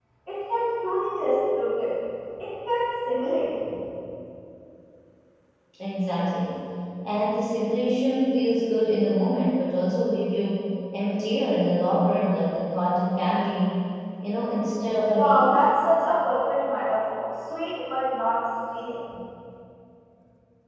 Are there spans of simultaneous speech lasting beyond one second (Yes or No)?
No